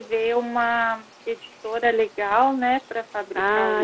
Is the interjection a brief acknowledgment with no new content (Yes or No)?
No